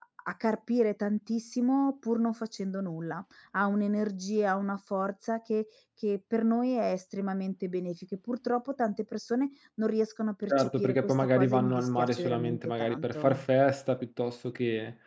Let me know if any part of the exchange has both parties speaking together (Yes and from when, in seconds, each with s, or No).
Yes, from 10.5 s